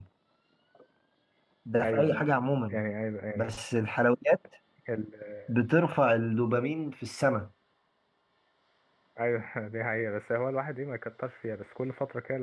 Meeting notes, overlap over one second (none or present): none